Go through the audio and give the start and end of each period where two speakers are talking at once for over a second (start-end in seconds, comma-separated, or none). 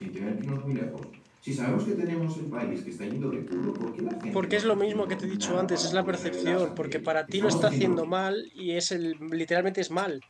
4.3-7.9